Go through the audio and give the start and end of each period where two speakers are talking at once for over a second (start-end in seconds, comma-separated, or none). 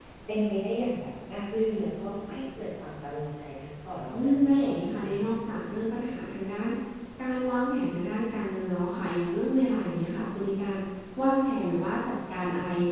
4.1-5.3